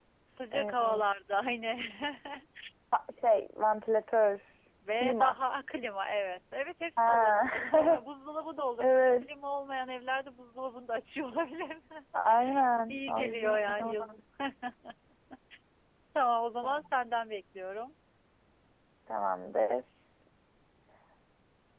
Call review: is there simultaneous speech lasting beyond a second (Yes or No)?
Yes